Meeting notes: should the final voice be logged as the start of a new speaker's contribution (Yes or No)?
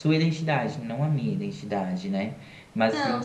No